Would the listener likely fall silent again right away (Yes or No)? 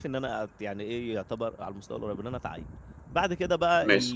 Yes